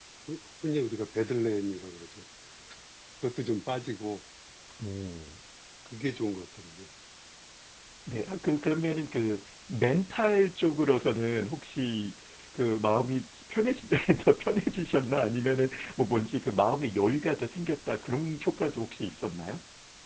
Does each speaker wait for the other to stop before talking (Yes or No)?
Yes